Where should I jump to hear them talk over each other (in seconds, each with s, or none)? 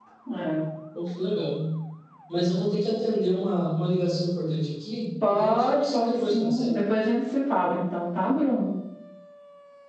5.2 s